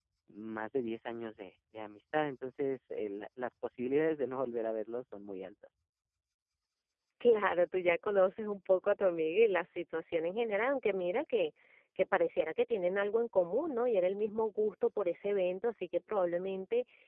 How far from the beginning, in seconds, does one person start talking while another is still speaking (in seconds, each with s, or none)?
none